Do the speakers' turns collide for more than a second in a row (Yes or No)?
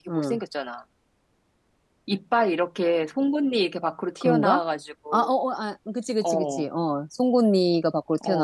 No